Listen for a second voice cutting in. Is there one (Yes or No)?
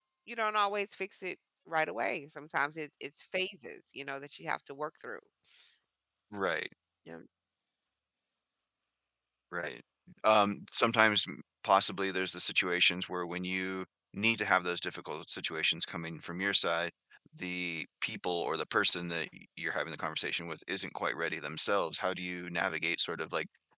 No